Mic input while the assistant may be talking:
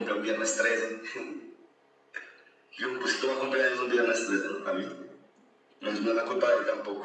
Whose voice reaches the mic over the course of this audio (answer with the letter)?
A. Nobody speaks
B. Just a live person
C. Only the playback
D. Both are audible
C